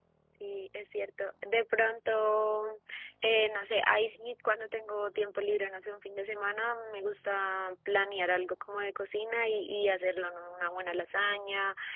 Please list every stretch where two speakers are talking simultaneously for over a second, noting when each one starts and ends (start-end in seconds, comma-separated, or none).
none